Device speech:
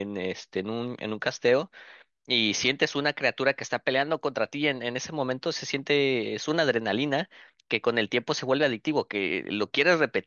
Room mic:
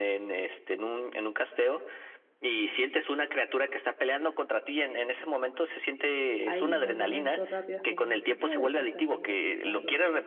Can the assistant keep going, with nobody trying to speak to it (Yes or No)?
No